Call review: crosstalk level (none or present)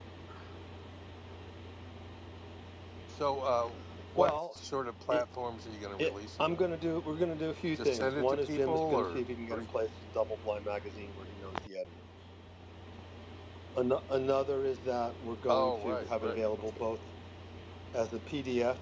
present